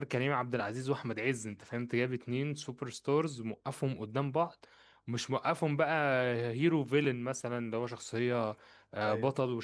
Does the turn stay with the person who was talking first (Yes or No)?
Yes